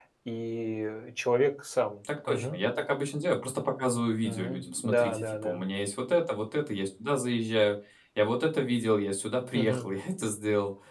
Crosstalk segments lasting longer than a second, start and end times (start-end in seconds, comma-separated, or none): 4.2-5.6